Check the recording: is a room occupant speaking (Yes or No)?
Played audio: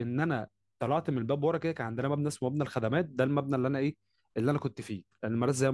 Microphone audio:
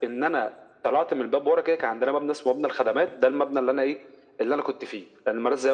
No